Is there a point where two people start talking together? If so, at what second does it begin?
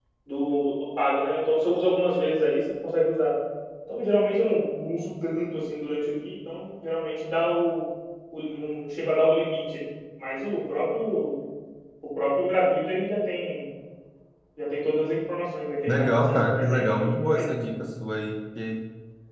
15.9 s

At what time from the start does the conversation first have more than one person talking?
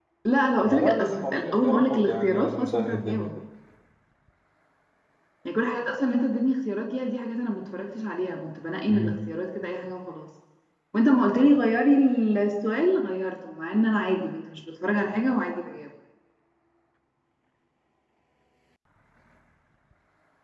0.6 s

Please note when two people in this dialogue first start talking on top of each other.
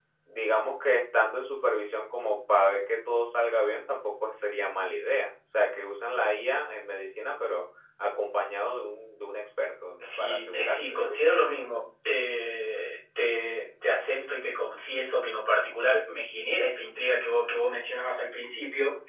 10.0 s

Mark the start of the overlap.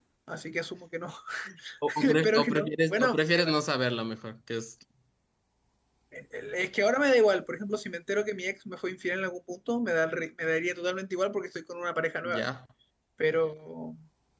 2.0 s

